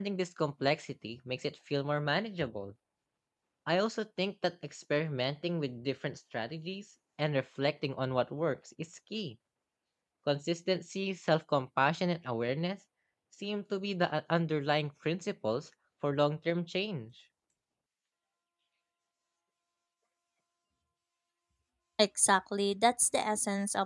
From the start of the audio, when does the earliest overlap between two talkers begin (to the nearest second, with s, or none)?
none